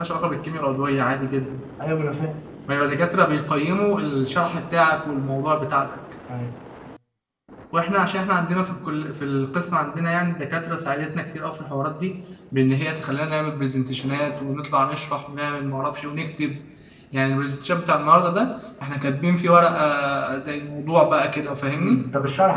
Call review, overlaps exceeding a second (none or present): none